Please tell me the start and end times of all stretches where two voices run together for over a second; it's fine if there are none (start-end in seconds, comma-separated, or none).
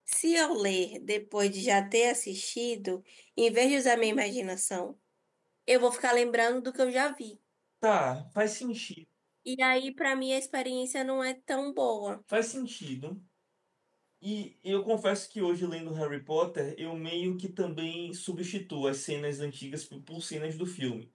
none